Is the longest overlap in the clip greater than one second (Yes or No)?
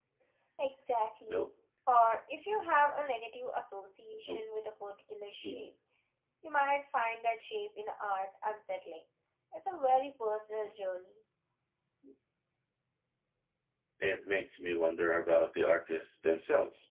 No